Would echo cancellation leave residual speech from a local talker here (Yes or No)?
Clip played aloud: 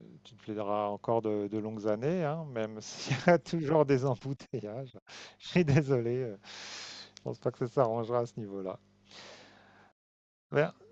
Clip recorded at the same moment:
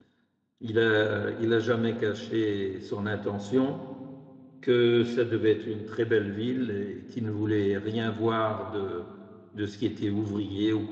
Yes